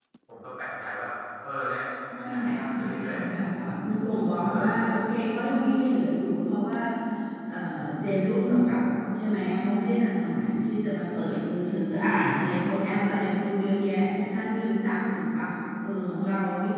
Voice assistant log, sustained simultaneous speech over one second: present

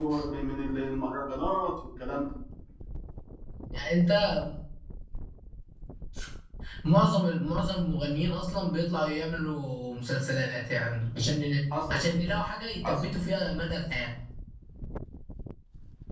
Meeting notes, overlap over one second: none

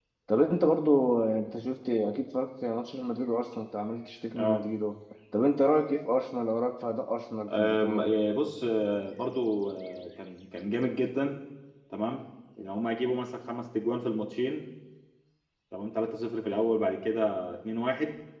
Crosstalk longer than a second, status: none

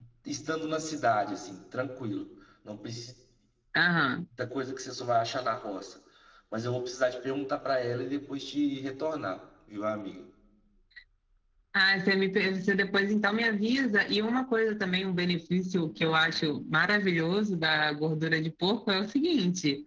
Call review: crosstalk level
none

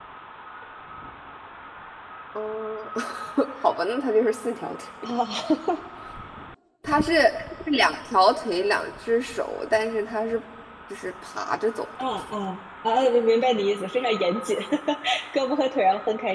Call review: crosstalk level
none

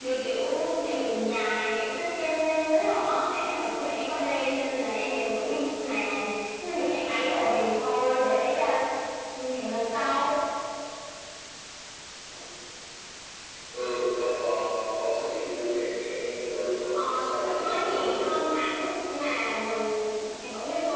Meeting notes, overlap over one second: present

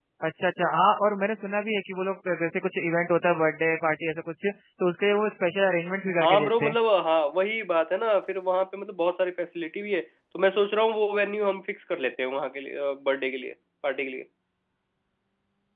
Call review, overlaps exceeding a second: none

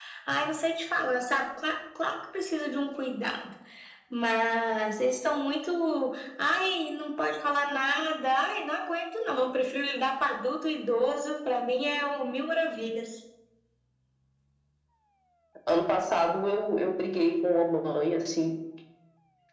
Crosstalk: none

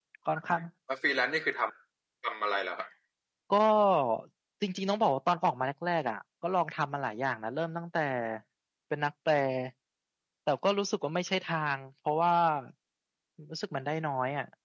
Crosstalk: none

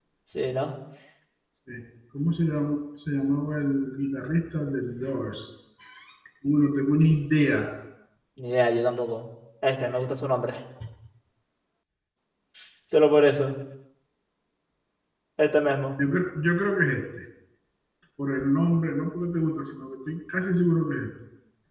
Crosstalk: none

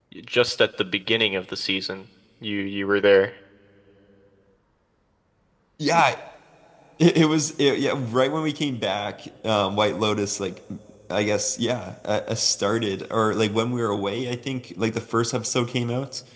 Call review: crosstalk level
none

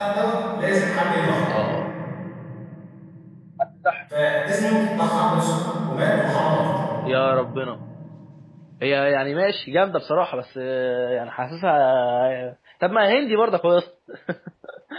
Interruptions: none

